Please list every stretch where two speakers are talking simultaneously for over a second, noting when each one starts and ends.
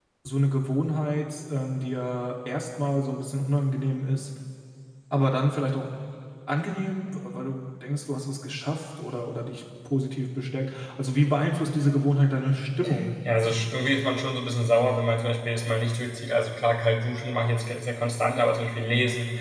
none

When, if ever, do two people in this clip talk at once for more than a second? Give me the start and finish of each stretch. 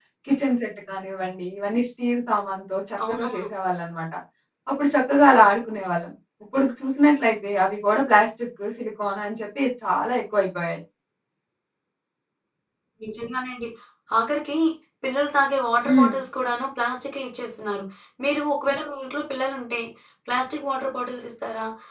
none

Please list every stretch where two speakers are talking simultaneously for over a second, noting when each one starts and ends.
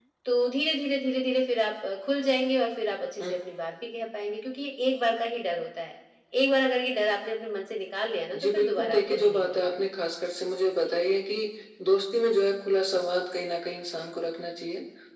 8.3-9.8

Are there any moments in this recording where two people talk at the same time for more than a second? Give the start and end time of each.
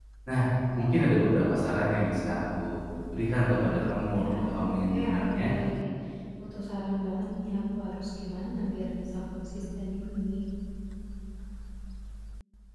4.1-5.4

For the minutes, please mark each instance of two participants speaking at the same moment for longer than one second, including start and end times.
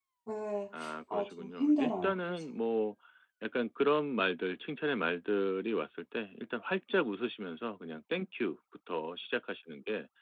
1.1-2.4

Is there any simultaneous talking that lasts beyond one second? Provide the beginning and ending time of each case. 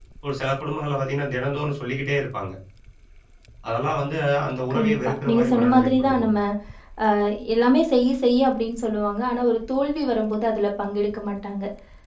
4.7-6.3

